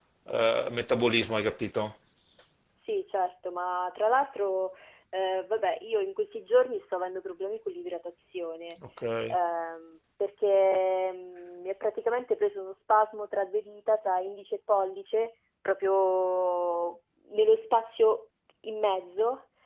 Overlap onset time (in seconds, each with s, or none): none